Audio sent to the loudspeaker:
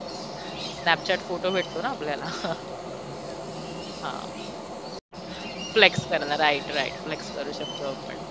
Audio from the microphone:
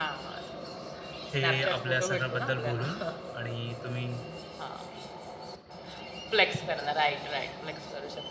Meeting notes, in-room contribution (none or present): present